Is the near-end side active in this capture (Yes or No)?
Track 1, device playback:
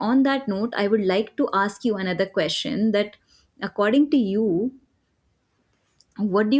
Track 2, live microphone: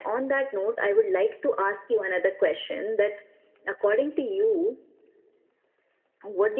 No